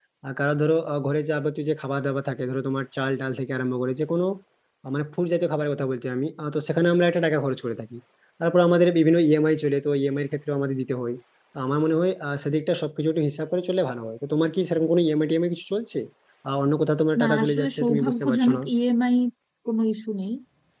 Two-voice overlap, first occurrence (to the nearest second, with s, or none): 17 s